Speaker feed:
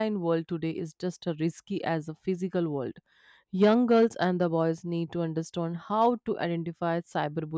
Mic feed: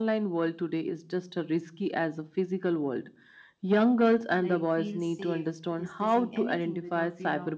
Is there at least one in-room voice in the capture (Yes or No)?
Yes